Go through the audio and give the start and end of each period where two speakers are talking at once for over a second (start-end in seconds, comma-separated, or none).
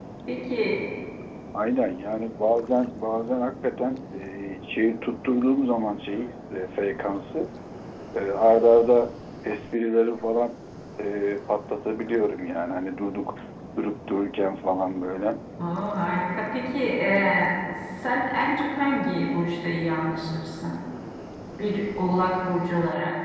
none